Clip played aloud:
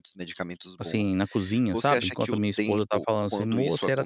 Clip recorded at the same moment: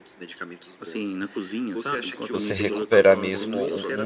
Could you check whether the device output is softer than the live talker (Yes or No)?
Yes